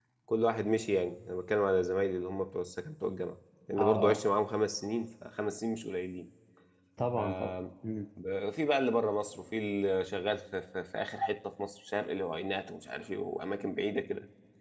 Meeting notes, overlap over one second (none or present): none